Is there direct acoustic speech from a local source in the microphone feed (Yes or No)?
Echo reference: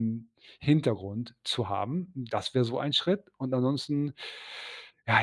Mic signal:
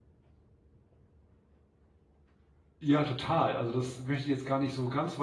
Yes